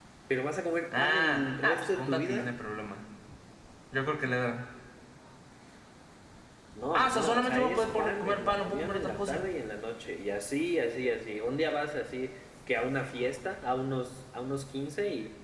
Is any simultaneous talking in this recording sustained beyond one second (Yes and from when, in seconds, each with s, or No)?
Yes, from 1.0 s